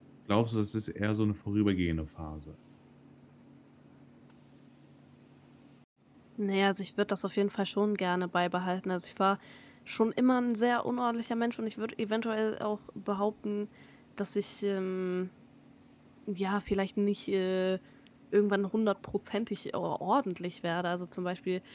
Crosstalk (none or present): none